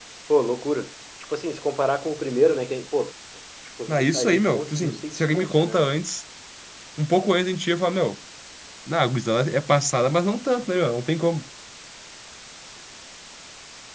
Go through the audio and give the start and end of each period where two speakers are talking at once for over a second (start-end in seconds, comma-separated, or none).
3.9-5.9